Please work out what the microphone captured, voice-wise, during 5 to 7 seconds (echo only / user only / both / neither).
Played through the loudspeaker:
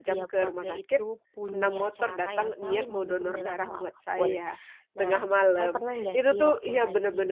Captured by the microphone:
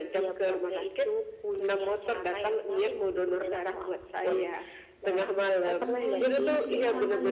both